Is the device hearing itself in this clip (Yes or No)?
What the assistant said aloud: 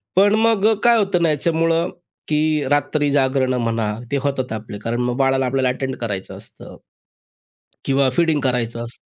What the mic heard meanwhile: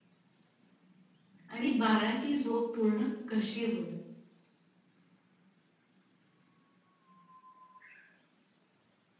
No